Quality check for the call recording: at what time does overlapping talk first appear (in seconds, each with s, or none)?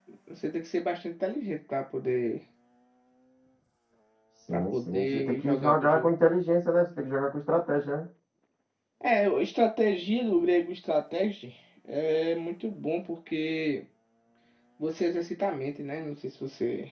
4.5 s